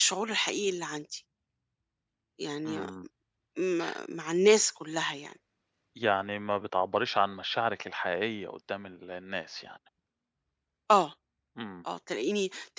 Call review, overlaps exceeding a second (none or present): none